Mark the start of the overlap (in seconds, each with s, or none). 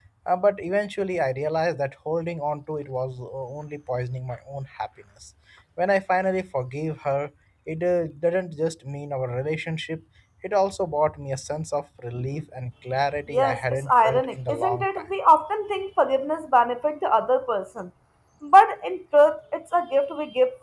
13.3 s